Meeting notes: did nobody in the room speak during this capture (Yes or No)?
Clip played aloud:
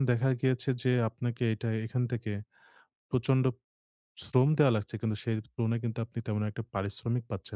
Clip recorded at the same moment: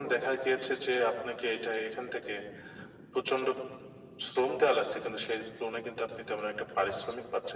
Yes